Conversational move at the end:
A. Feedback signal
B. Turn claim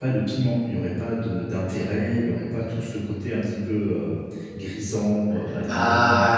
B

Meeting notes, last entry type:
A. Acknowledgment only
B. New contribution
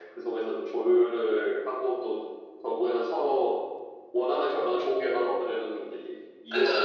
B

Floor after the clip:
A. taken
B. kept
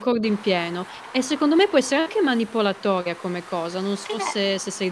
A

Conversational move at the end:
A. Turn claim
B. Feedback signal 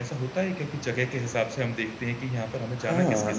A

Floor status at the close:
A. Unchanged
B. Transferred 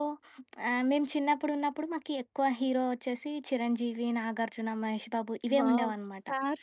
B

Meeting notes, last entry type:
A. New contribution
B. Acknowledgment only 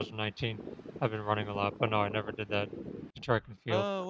A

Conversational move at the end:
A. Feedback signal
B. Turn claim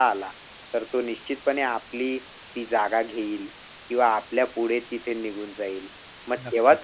A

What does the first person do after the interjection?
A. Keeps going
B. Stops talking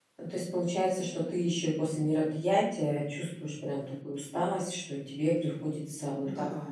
A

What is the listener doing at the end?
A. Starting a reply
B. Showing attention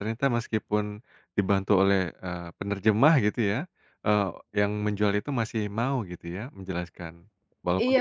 A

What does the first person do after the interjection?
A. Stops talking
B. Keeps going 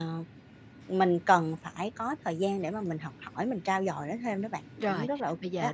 A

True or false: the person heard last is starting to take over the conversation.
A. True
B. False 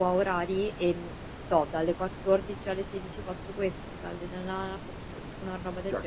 A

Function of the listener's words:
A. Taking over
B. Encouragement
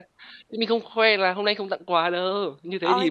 A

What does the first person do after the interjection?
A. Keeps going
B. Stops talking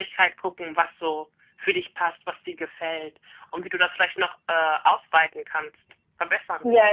B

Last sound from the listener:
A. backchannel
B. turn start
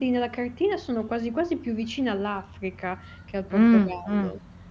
B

